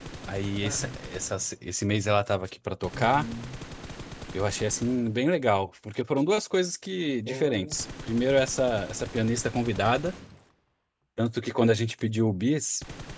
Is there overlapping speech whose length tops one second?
No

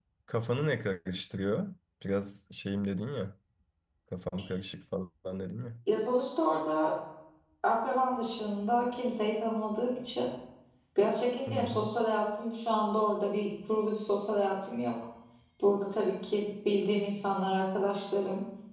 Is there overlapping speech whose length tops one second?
No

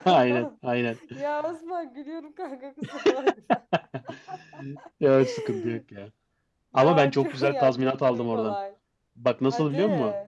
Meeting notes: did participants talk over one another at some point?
Yes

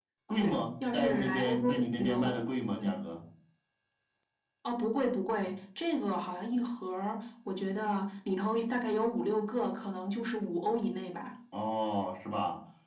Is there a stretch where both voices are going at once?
Yes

